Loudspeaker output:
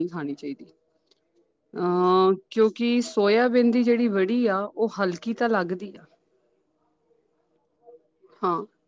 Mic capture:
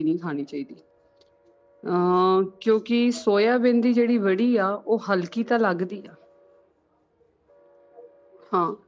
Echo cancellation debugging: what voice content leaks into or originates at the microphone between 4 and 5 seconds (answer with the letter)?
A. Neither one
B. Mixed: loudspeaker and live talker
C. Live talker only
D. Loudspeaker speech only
D